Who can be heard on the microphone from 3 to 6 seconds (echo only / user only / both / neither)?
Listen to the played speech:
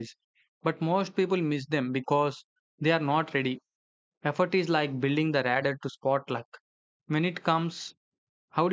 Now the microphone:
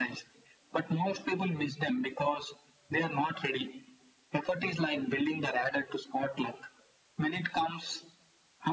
echo only